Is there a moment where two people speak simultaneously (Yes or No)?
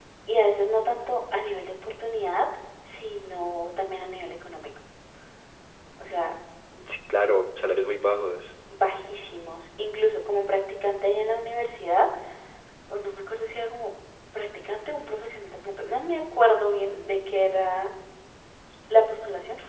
No